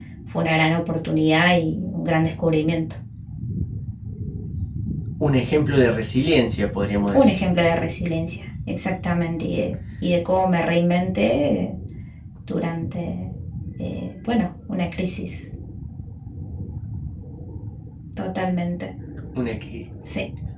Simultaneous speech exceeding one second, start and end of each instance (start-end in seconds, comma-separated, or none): none